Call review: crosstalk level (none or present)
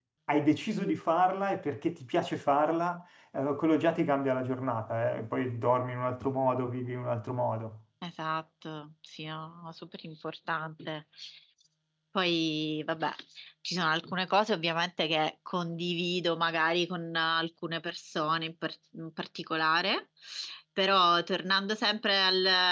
none